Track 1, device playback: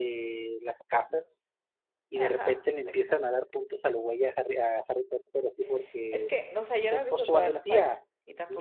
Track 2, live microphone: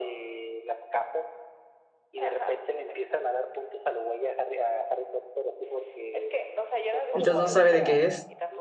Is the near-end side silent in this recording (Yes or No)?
No